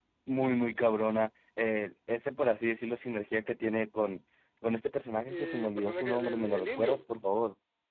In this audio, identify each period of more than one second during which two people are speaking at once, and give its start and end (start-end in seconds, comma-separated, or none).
5.3-7.0